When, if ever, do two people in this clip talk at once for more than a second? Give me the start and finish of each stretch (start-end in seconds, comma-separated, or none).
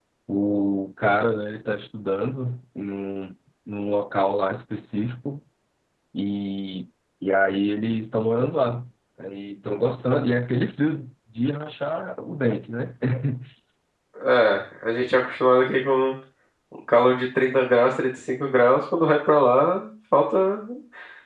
none